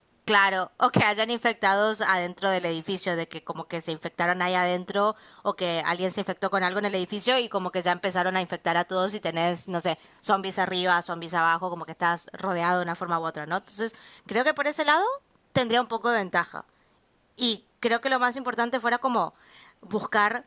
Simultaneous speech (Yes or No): No